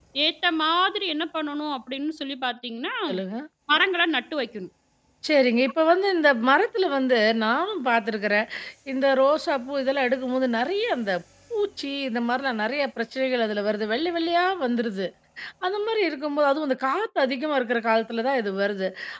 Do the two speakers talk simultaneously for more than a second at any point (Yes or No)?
No